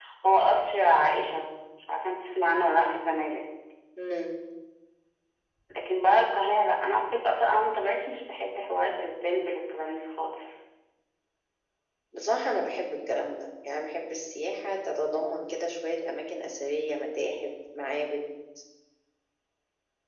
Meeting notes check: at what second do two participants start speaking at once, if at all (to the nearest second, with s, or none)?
none